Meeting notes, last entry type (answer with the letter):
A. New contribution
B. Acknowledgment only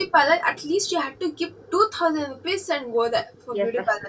A